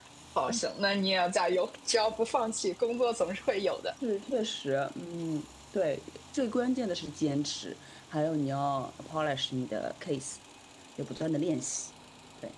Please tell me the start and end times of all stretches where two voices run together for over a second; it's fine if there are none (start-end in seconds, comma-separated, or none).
none